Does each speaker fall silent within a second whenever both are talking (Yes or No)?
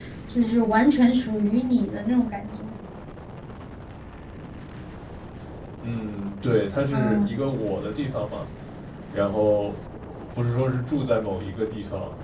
Yes